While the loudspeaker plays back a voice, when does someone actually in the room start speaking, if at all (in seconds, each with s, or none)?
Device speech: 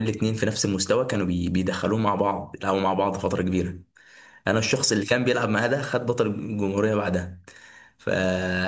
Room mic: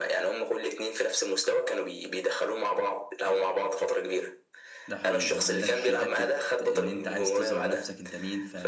4.9 s